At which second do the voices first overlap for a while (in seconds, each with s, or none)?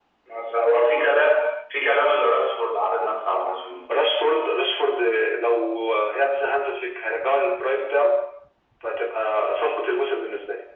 none